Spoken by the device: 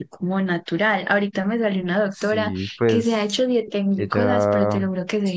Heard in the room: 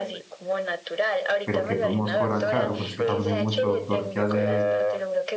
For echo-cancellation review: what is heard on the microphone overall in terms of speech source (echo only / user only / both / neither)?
both